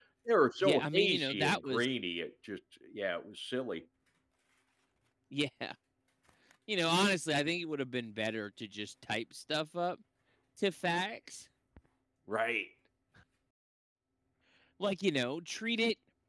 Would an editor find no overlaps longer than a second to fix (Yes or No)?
No